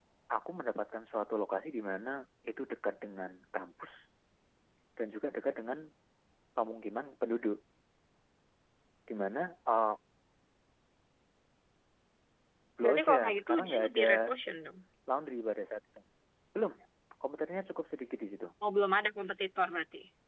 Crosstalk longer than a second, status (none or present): present